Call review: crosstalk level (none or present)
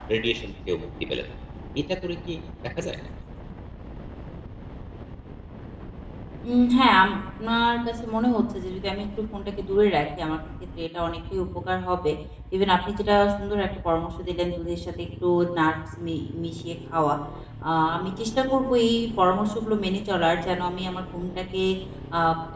none